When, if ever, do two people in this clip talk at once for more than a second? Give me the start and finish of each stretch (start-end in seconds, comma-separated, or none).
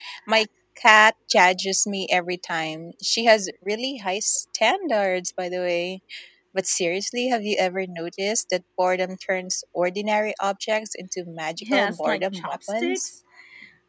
11.6-13.1